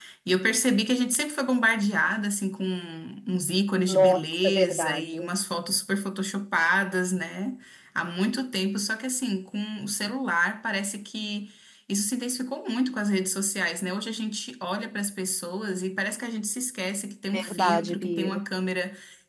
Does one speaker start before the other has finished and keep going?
Yes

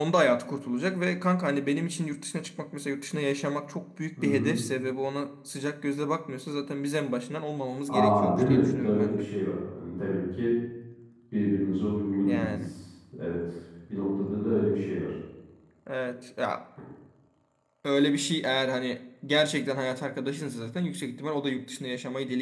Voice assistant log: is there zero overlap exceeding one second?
No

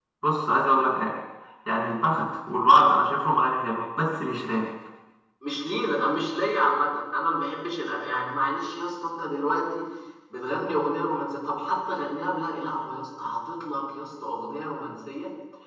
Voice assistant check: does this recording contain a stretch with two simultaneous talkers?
No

